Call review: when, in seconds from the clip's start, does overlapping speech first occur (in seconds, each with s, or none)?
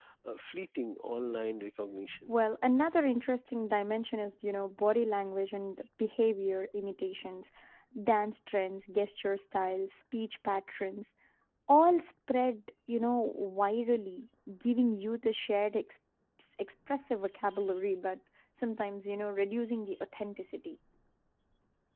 none